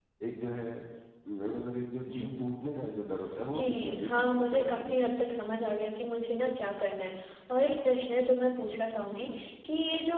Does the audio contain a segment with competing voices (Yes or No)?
Yes